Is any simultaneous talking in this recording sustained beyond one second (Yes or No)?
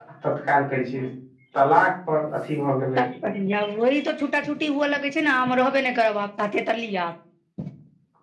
No